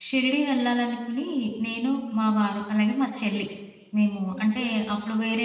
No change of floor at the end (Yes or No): Yes